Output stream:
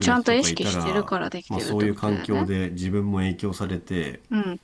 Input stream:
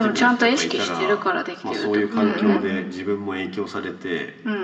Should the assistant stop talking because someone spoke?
Yes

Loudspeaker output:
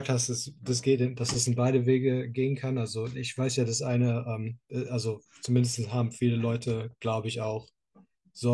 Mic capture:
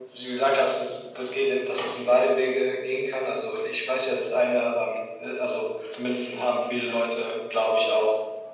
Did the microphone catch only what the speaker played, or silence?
Yes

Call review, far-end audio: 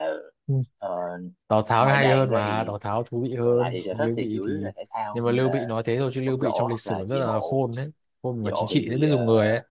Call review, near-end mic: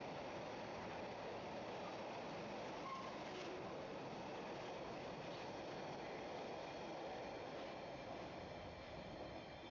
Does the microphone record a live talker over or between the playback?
No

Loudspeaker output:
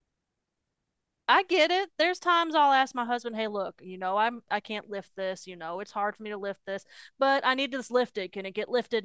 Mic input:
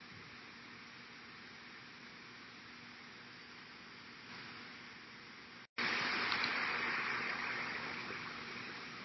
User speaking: No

